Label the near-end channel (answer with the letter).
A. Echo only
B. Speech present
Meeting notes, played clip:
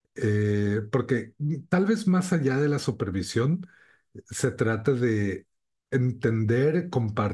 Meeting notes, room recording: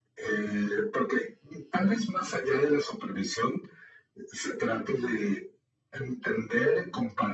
A